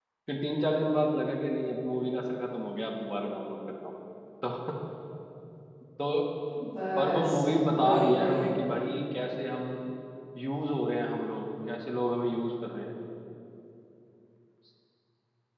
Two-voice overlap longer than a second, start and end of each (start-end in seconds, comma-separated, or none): 7.0-8.5